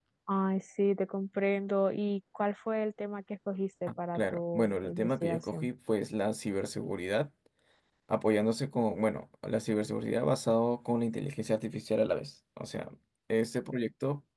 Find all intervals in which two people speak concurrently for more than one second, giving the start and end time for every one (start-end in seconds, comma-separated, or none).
4.2-5.7